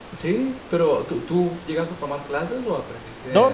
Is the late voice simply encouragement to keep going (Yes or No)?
No